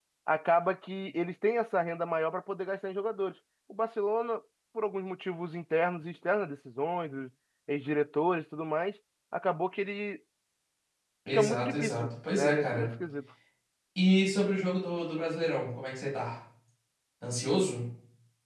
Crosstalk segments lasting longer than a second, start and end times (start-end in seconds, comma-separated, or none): 11.3-12.9